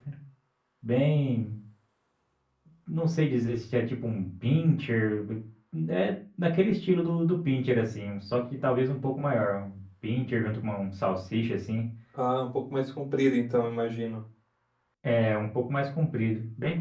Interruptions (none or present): none